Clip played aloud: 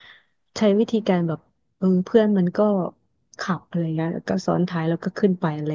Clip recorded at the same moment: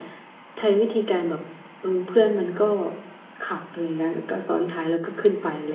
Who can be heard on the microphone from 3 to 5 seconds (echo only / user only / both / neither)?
echo only